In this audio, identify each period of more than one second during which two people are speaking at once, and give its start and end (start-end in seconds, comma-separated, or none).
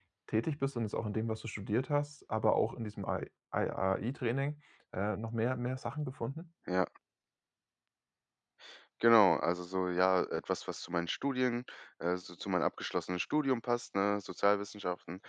none